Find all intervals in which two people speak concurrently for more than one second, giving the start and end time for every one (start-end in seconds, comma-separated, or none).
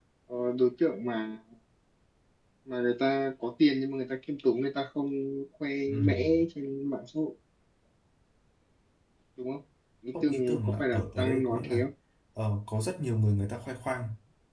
10.2-11.8